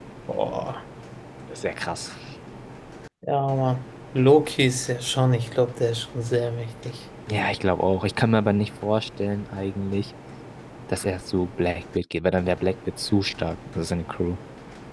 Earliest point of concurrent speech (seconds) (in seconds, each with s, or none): none